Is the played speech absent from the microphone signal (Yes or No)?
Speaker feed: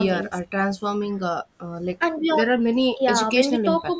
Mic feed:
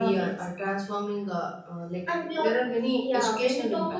No